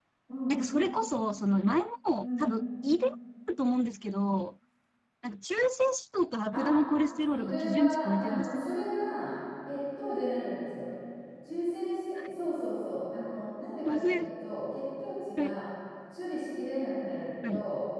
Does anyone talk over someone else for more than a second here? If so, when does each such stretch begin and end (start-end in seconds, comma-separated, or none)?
7.3-8.7